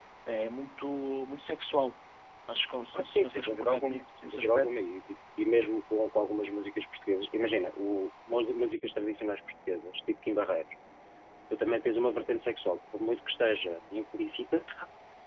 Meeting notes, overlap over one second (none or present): present